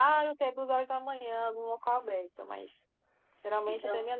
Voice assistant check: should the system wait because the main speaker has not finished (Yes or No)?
Yes